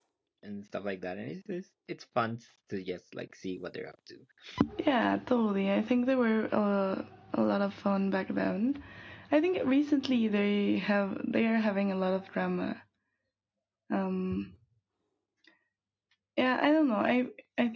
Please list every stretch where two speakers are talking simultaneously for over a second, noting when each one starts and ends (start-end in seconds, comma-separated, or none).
none